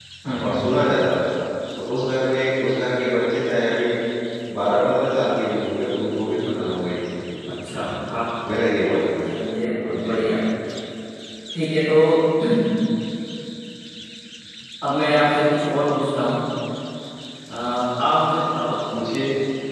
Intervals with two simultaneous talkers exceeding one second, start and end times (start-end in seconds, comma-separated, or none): none